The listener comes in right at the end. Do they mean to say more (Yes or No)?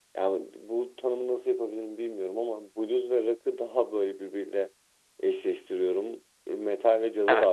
No